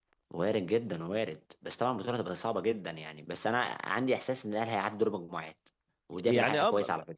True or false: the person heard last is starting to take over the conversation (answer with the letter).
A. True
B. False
A